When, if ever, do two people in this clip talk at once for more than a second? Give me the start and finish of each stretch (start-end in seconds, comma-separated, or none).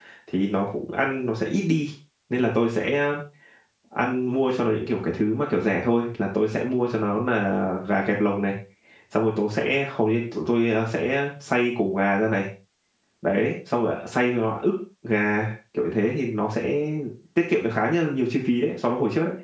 none